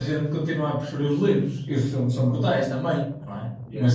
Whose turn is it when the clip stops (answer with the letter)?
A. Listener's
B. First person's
B